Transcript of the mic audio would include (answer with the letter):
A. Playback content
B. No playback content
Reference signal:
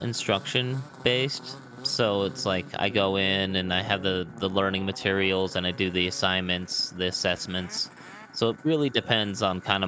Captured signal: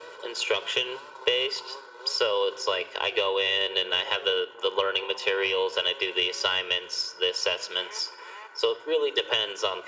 A